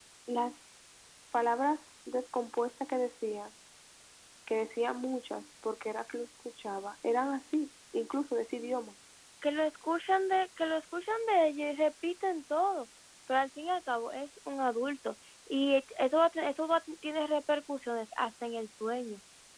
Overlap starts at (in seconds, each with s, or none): none